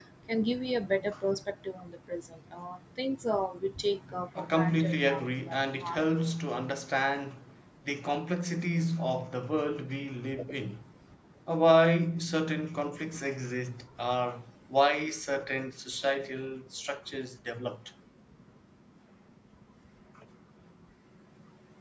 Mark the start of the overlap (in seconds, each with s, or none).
4.3 s